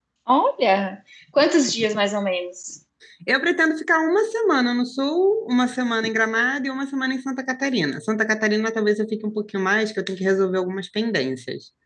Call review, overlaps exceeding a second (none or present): none